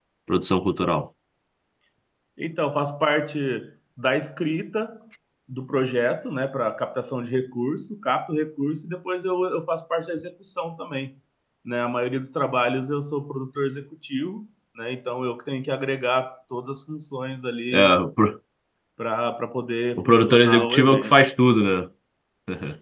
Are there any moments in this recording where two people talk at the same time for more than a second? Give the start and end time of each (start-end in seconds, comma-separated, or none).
20.0-21.2